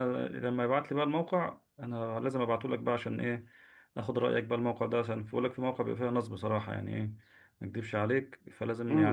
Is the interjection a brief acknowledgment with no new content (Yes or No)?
No